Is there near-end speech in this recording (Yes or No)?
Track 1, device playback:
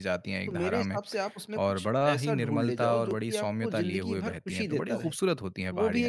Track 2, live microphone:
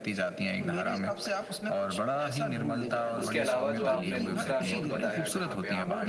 Yes